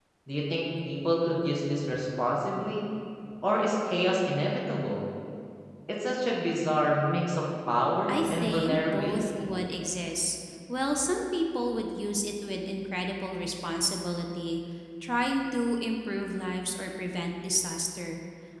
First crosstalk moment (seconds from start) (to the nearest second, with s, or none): 8 s